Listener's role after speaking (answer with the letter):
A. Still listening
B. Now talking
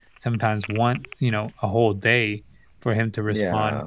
A